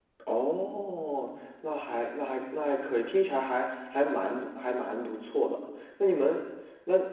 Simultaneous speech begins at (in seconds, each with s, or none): none